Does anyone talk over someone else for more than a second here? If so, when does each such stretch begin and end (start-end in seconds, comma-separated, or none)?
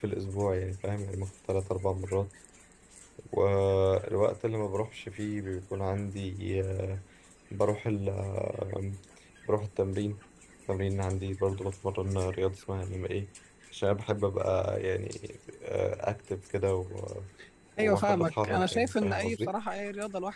17.8-19.5